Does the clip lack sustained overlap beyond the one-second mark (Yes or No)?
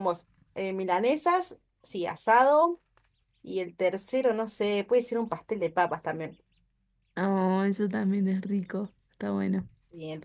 Yes